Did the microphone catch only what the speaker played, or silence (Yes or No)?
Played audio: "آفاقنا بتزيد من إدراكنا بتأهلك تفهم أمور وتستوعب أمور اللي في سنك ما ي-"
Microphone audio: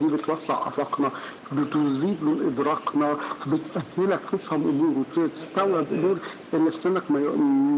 No